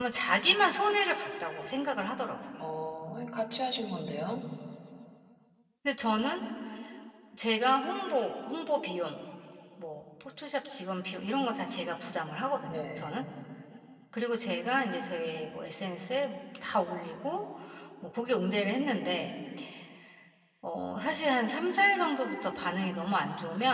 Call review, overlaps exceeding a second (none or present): none